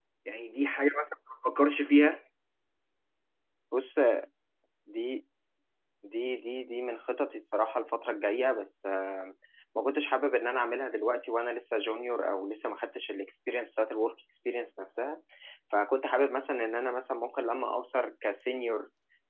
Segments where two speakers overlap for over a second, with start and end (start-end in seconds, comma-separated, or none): none